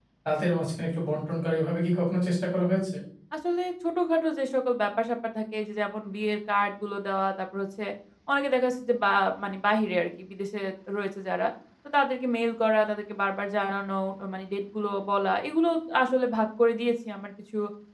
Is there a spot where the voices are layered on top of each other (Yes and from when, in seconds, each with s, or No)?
No